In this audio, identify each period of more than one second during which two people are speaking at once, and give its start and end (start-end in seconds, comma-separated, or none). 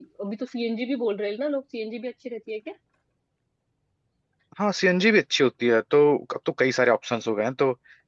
none